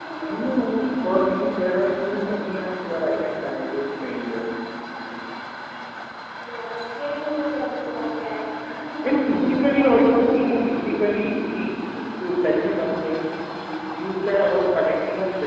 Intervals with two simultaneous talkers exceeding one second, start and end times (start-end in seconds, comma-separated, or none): 9.0-10.8